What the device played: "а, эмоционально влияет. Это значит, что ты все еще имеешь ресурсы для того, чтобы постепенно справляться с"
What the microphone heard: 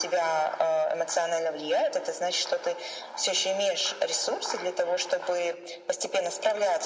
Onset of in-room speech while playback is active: none

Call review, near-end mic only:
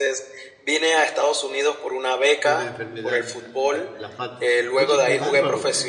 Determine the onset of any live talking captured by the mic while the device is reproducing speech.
2 s

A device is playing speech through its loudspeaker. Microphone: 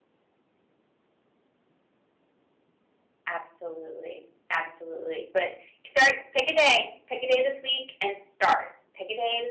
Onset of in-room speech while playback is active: none

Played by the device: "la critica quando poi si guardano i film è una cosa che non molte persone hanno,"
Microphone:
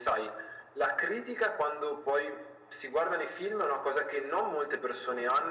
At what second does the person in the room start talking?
none

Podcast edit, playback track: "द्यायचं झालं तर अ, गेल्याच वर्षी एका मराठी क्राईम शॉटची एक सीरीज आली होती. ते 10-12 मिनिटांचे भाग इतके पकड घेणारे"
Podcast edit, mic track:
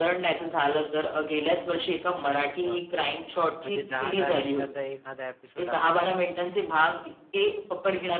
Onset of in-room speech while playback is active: 2 s

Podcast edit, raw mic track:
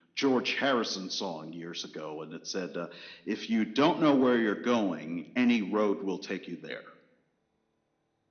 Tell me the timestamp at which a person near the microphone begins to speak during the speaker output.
none

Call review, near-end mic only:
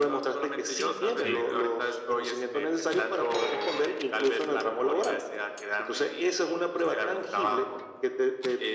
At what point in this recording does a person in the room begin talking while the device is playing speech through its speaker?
1 s

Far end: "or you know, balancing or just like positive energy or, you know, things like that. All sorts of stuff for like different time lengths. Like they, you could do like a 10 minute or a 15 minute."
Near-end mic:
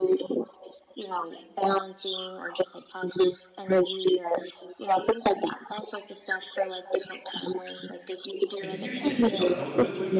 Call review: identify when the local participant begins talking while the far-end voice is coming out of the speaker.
9 s

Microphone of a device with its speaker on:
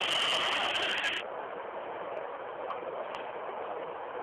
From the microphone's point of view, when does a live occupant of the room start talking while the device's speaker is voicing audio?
none

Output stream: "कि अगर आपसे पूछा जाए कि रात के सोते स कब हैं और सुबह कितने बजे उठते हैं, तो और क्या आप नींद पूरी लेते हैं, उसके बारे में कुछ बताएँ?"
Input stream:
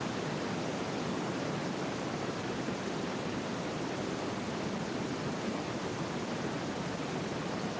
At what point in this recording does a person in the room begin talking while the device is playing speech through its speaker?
none

